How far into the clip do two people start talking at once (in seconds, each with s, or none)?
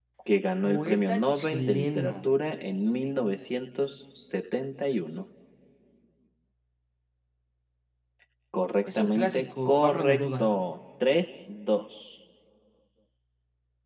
0.6 s